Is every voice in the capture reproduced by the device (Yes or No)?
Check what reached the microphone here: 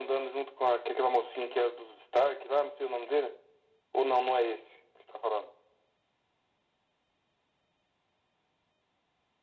Yes